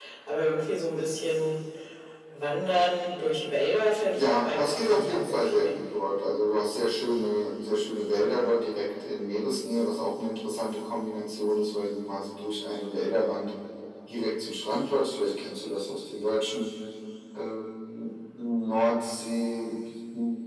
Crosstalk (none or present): present